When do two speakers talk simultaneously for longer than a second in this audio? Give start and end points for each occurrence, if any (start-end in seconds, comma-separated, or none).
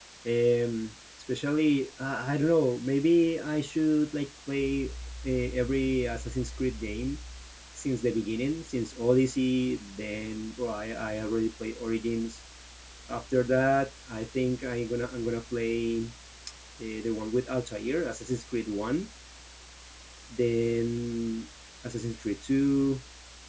none